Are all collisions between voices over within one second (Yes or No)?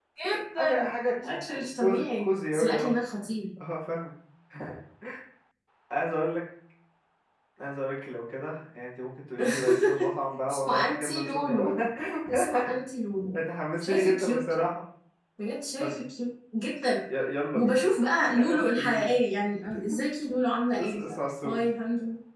No